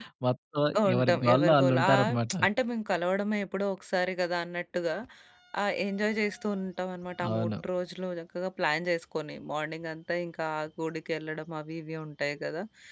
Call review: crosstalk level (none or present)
present